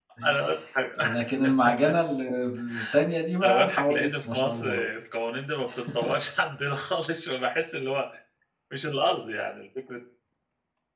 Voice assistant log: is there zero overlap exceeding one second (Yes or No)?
No